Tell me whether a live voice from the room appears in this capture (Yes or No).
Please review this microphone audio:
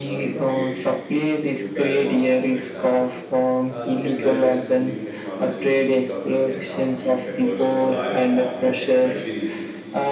Yes